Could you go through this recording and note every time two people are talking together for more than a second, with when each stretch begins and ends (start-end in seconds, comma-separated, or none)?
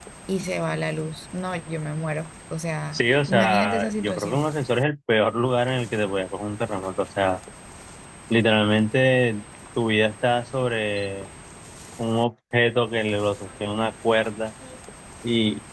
2.9-4.5